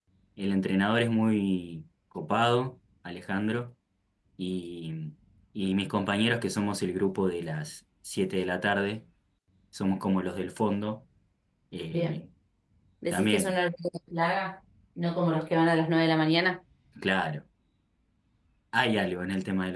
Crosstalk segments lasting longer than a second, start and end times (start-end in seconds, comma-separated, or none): none